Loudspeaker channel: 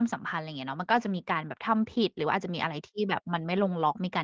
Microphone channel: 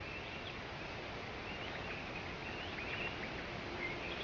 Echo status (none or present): none